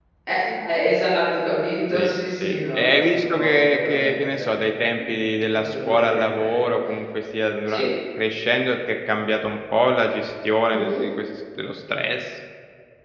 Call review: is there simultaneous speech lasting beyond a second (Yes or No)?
Yes